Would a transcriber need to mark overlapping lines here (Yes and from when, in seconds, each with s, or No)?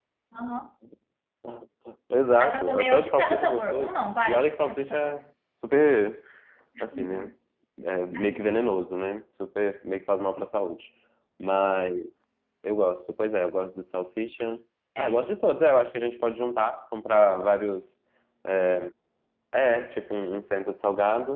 Yes, from 2.4 s